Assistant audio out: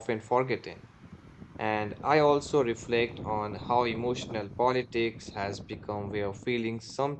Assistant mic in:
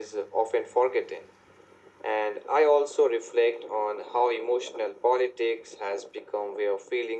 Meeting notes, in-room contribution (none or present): none